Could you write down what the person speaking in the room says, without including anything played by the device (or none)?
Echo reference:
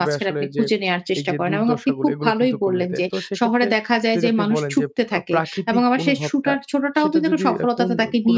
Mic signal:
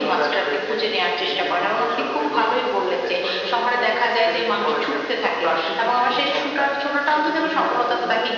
none